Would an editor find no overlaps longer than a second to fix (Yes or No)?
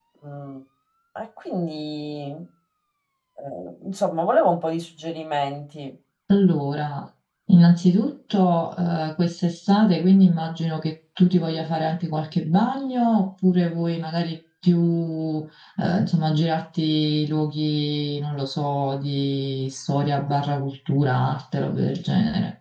Yes